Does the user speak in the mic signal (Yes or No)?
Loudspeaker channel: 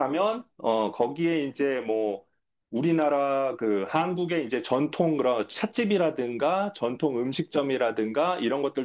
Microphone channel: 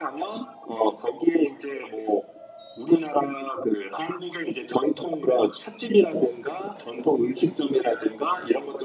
No